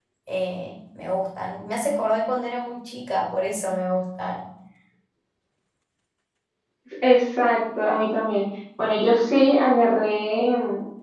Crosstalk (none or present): none